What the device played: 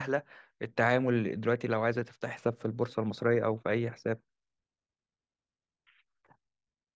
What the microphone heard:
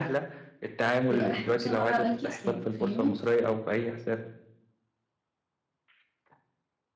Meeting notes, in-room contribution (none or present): present